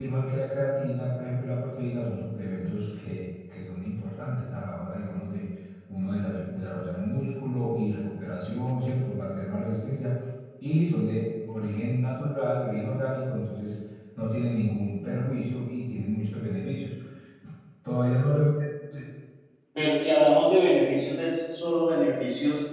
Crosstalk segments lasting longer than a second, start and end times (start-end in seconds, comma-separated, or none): none